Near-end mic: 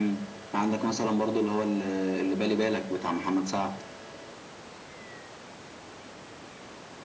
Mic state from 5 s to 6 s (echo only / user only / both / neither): neither